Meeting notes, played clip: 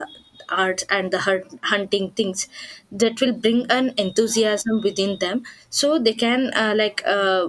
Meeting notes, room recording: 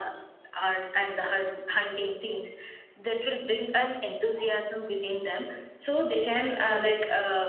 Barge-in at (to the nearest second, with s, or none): none